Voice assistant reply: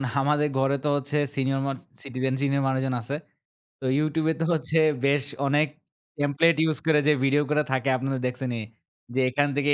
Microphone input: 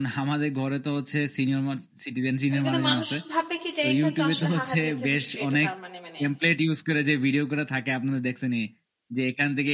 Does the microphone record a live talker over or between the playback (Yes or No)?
Yes